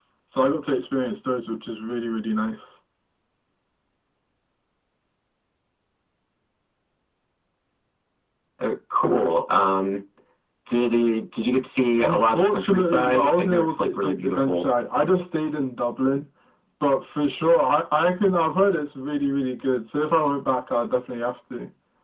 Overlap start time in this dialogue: 12.0 s

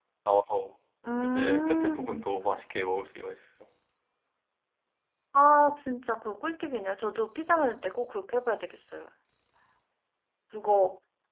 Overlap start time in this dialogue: 1.2 s

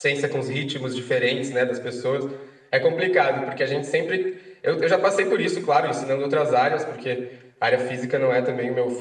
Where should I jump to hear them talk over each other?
none

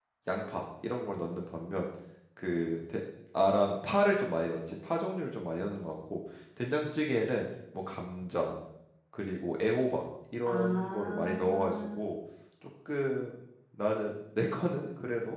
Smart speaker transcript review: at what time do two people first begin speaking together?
10.5 s

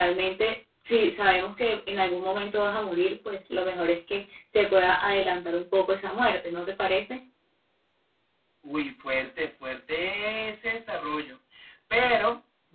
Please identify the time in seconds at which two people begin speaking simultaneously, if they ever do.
none

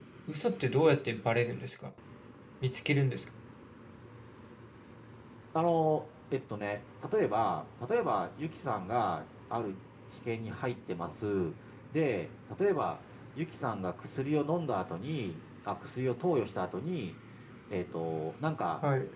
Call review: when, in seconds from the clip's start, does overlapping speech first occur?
none

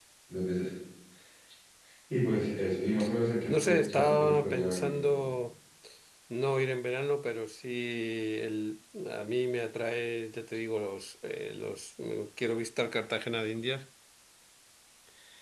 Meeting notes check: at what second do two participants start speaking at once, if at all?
3.5 s

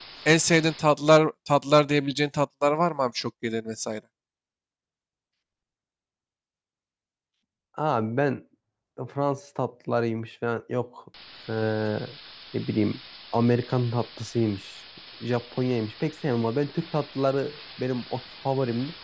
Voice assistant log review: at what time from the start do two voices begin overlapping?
none

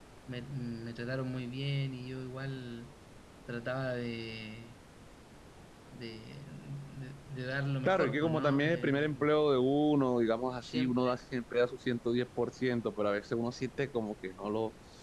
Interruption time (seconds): 7.8 s

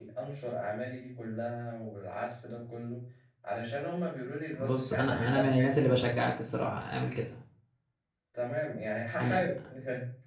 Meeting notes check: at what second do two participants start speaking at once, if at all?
4.6 s

